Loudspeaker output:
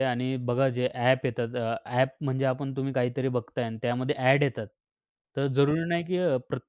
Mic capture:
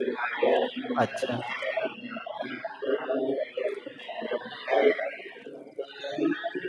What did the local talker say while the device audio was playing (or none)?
अच्छा.